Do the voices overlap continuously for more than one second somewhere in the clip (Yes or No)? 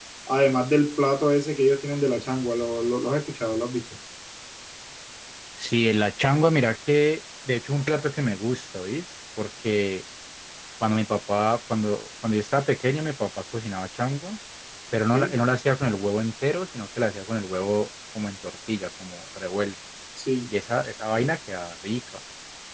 No